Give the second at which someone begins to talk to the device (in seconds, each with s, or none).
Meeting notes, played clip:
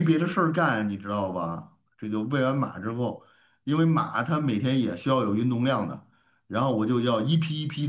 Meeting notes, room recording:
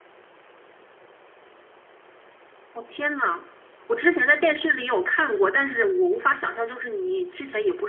2.7 s